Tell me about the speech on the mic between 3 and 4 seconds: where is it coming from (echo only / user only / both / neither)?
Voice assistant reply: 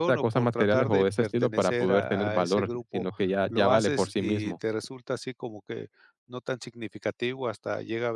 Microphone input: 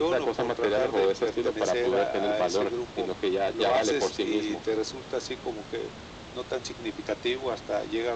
echo only